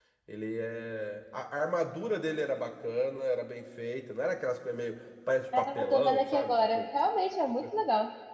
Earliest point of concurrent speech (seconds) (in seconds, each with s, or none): 5.5 s